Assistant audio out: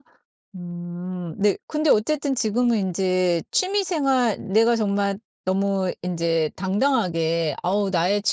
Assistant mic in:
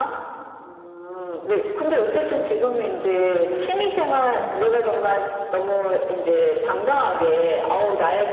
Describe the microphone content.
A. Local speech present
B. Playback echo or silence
A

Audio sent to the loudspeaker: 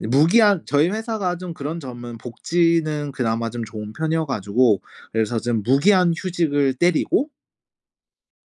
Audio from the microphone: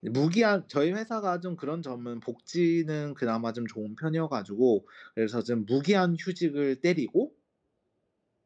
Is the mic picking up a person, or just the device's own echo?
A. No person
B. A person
A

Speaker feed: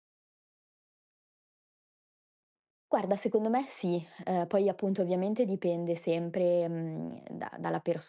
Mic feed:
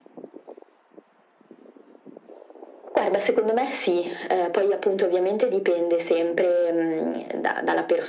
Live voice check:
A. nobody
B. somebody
A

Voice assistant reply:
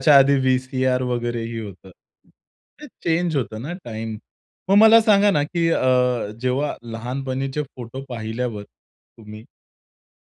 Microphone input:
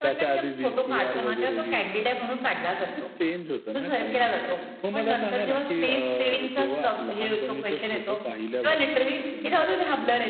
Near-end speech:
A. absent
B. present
B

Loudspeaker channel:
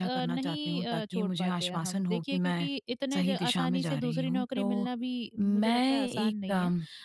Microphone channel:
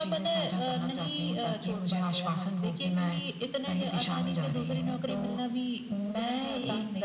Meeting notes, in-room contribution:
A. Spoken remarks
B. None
B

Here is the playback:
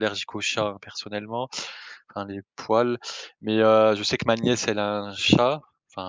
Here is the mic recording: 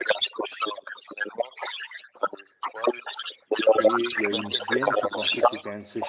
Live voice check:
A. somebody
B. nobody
A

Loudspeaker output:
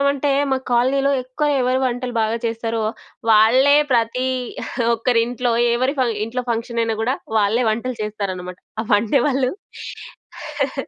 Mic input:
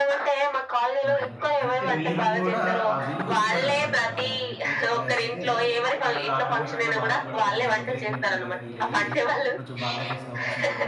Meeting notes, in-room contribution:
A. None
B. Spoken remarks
B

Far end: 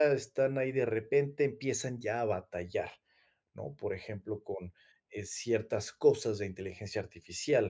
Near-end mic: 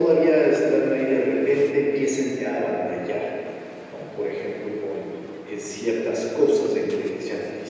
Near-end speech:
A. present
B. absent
B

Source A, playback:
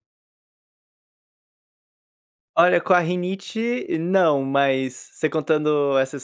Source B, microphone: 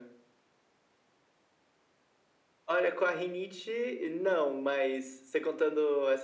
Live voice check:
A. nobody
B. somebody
A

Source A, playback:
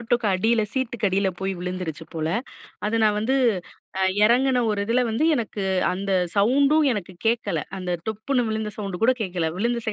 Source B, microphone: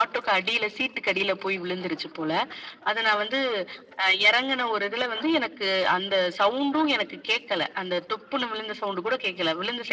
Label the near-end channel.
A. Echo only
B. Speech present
A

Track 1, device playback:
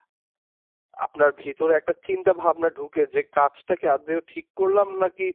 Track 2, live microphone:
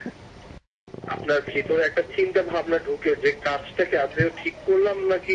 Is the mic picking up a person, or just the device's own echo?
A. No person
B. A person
A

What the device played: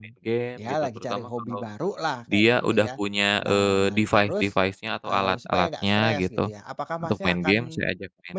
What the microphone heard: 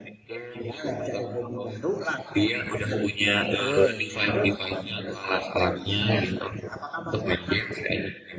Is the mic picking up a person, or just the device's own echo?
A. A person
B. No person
A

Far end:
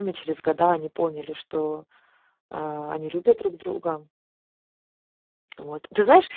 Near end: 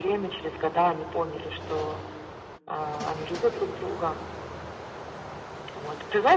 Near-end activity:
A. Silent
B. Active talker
A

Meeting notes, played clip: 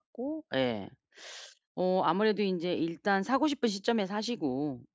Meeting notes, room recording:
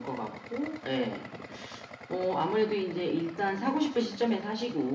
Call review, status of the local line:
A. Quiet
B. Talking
A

